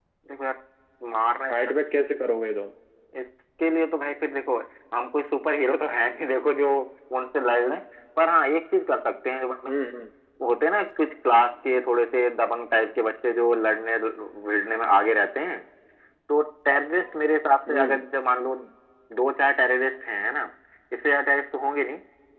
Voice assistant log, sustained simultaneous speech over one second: none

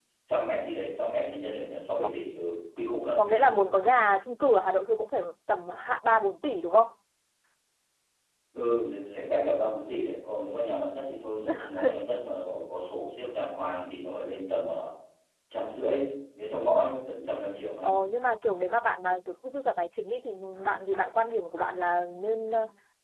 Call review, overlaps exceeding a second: none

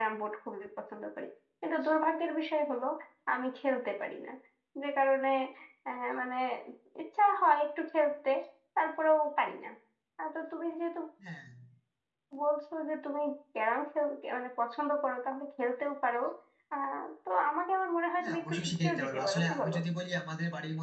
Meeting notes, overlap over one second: present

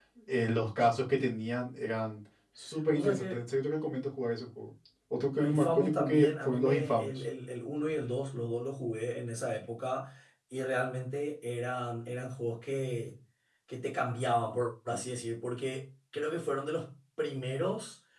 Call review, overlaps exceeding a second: present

